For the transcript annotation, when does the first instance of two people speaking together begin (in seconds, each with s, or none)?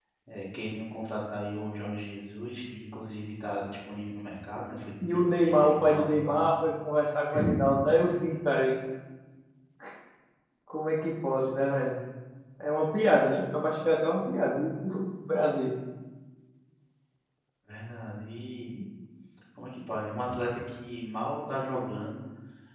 5.0 s